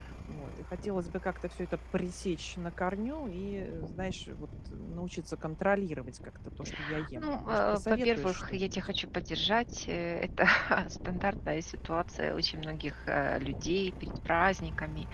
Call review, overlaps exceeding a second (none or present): present